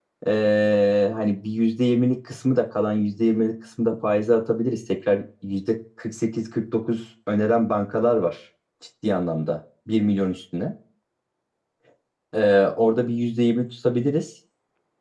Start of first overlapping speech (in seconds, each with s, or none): none